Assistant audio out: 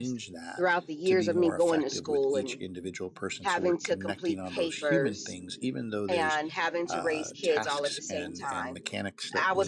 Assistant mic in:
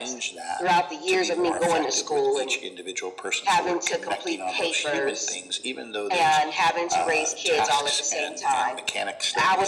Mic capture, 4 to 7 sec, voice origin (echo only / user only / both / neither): echo only